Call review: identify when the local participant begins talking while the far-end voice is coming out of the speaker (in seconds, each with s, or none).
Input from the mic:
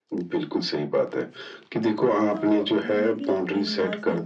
2.3 s